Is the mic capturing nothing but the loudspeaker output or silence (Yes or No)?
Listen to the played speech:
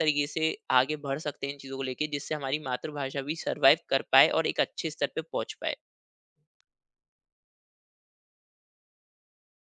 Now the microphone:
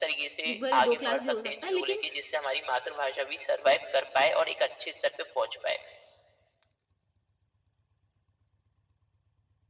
No